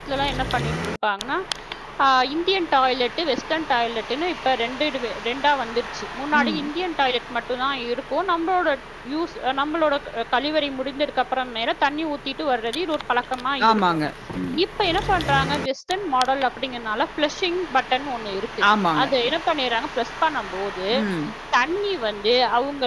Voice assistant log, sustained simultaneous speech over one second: none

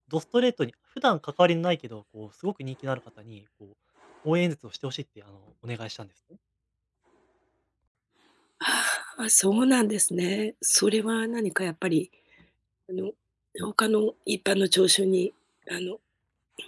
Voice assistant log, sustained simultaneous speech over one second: none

